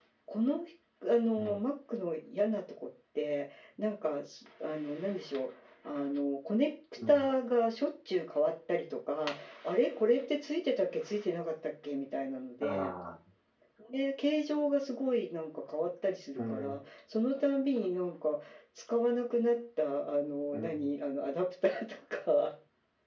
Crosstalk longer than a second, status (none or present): none